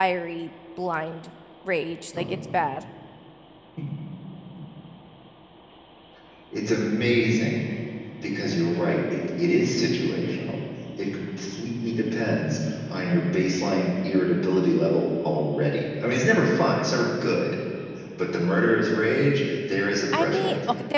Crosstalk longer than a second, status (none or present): none